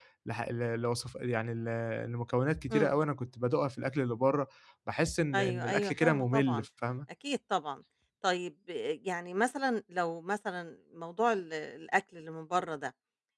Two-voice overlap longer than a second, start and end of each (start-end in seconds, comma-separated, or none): 5.3-6.7